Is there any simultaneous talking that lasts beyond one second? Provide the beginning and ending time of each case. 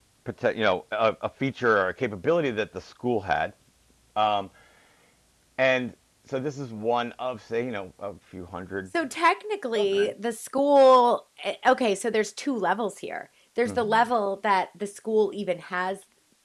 none

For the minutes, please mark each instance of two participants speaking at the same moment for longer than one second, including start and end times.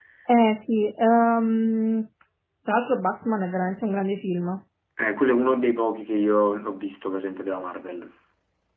none

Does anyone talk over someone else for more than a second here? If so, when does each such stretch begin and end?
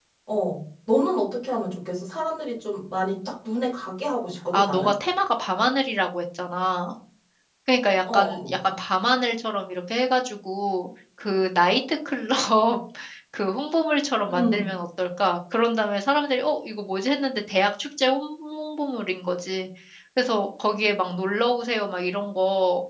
none

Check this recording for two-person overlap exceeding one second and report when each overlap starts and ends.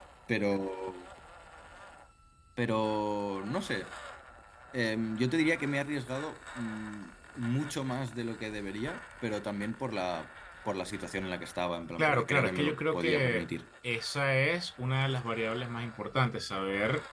12.0-13.4

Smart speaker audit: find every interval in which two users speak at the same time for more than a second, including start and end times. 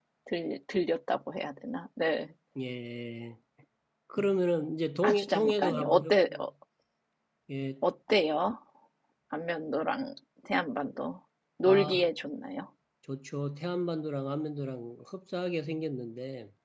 5.0-6.4

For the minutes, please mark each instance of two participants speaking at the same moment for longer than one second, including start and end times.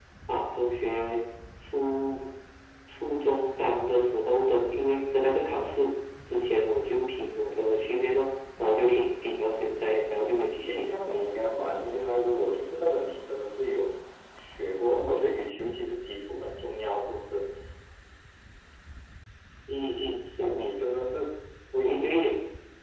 none

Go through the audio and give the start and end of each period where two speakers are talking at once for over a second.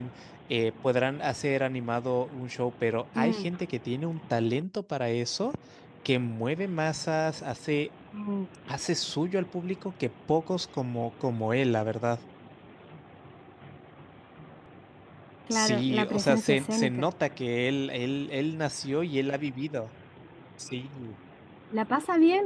15.5-17.1

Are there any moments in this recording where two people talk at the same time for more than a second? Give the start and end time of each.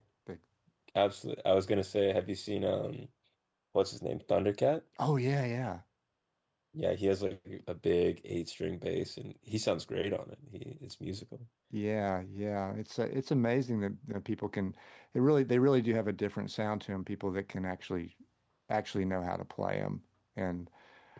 none

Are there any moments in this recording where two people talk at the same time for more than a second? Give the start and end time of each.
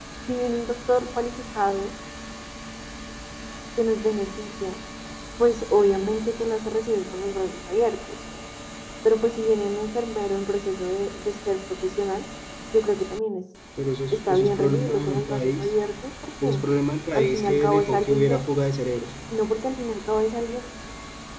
14.1-15.7, 17.2-18.4

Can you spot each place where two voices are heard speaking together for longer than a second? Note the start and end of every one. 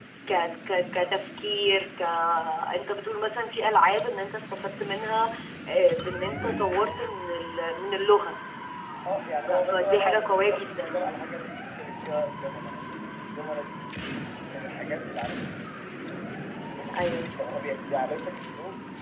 9.5-11.0

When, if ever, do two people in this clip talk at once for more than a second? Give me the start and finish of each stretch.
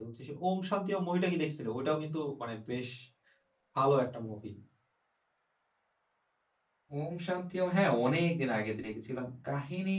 none

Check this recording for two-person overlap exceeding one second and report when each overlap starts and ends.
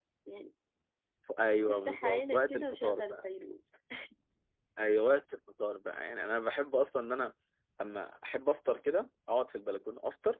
1.7-3.2

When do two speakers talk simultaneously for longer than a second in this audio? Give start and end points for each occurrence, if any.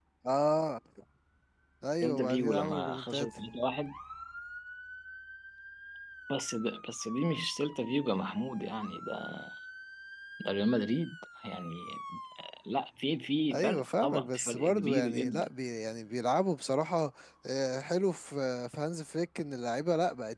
2.0-3.3, 13.5-15.5

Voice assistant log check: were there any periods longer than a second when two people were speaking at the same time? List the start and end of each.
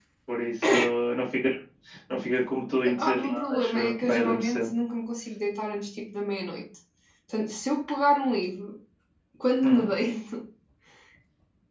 3.0-4.7

